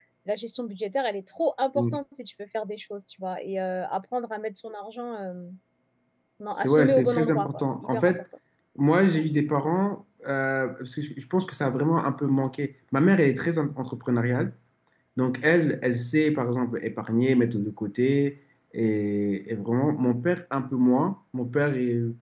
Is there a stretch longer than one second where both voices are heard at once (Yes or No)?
Yes